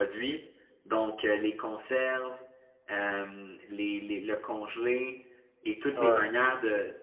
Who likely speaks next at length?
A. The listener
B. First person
B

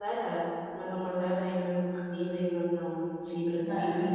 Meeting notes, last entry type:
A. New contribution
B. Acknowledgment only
A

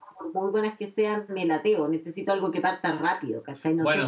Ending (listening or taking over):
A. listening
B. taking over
B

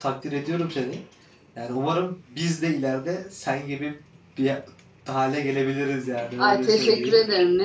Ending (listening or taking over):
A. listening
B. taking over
B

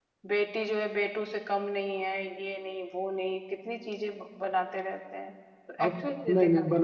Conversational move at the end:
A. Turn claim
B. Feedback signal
A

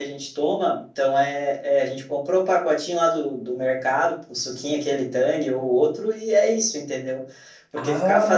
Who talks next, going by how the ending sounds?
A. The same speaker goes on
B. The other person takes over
A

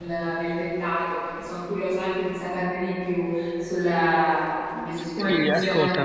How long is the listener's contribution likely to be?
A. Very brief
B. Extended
B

